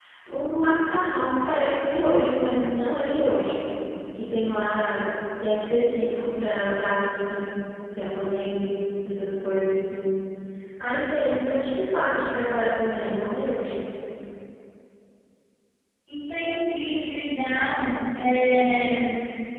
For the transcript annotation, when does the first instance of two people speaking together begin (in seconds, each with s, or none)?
none